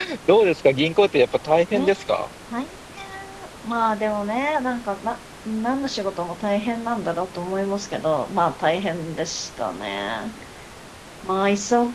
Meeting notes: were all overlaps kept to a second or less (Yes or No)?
Yes